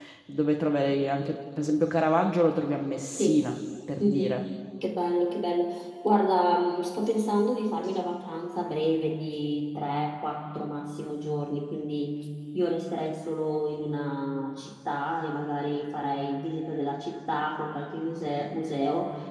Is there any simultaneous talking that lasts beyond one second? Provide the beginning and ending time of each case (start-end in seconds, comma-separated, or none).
none